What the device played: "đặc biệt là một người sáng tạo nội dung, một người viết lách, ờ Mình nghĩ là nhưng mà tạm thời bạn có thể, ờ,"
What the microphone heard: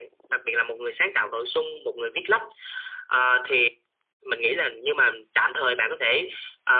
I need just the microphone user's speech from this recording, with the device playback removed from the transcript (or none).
none